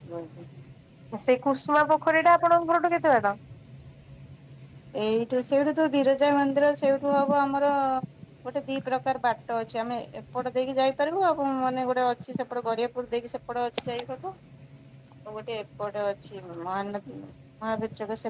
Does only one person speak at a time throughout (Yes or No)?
Yes